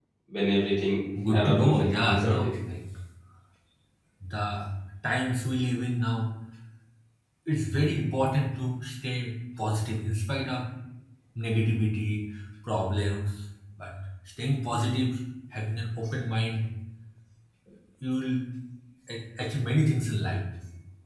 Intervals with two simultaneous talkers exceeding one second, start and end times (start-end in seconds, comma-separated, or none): 1.3-2.5